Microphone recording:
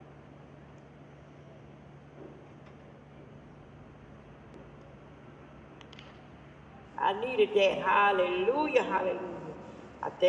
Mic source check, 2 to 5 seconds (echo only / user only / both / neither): neither